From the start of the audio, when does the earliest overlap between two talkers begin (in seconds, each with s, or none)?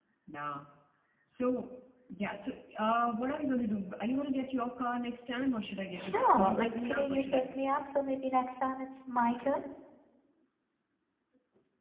5.9 s